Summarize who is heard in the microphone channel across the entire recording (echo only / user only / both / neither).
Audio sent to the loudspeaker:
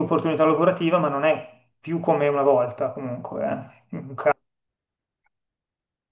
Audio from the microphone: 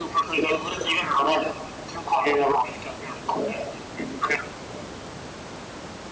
echo only